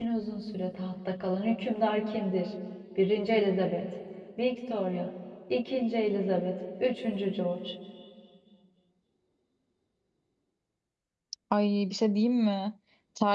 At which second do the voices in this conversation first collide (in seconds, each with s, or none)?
none